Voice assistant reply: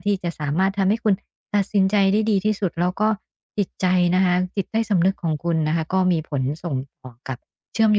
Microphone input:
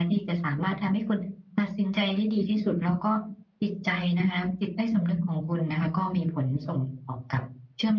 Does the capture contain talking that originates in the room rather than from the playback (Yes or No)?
No